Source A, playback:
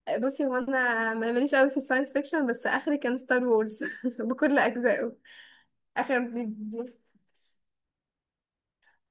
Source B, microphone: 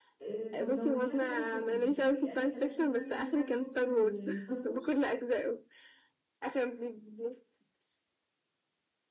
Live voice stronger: No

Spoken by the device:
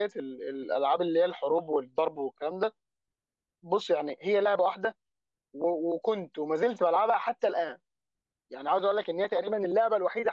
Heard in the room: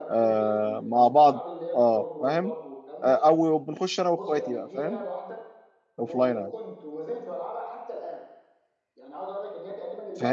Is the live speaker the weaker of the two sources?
No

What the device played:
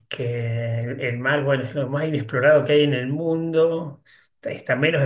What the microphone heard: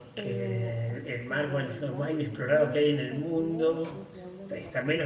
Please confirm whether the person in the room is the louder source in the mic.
No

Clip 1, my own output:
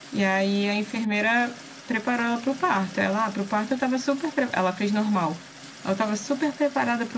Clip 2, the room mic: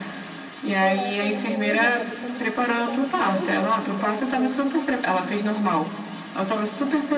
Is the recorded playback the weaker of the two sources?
No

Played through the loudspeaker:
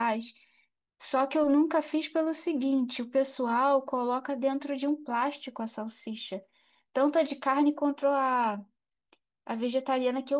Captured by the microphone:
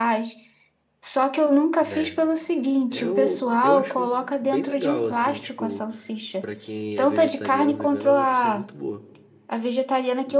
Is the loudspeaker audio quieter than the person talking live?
No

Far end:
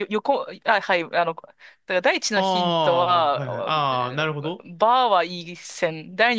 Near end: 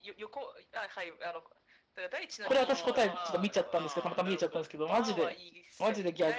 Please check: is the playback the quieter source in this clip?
Yes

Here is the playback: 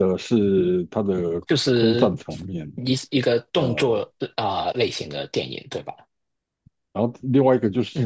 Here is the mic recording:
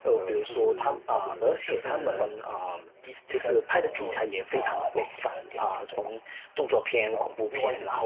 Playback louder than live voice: No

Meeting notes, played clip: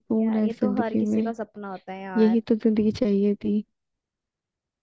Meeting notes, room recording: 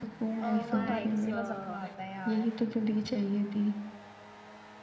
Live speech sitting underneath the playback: Yes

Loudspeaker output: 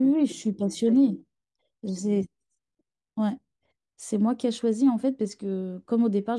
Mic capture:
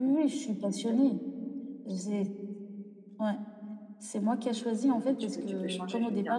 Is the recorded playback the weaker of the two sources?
No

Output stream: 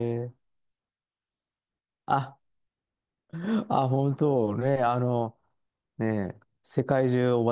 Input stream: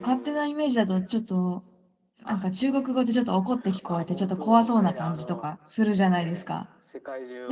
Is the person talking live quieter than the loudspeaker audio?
No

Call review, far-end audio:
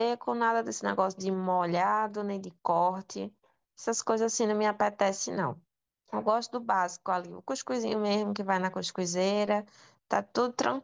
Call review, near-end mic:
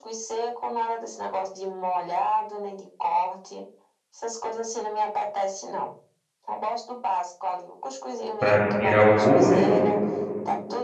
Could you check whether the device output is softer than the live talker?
Yes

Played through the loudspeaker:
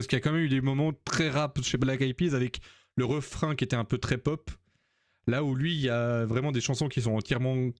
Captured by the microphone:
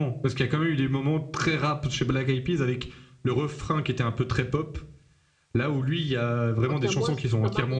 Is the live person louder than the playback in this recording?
No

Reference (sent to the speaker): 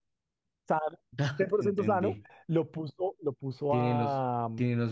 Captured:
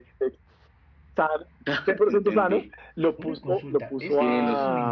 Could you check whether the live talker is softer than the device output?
Yes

